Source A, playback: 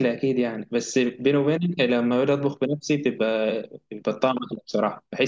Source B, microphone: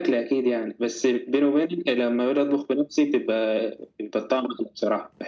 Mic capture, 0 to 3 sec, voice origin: echo only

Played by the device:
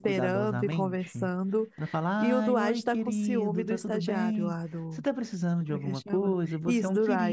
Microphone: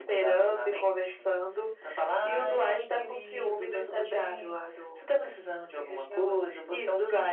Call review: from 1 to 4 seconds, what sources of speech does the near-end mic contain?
echo only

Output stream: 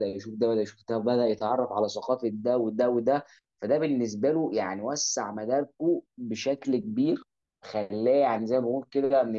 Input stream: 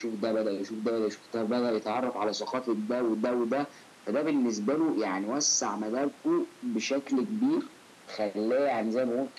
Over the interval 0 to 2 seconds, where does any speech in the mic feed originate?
echo only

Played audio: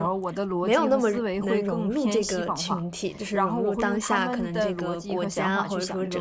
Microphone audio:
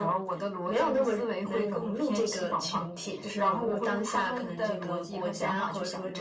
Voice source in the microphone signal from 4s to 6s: echo only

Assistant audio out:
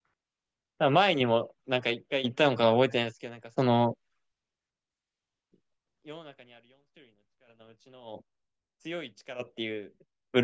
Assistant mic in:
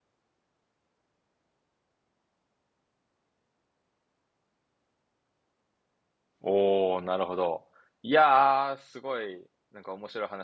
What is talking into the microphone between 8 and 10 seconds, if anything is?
user only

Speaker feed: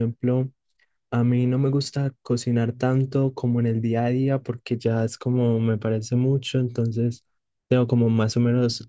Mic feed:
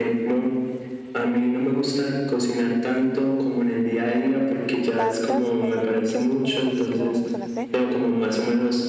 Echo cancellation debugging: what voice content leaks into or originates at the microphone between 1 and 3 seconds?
echo only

